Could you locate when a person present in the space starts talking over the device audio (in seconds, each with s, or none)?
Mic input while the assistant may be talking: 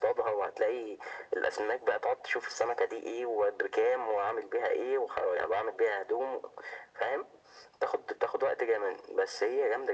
none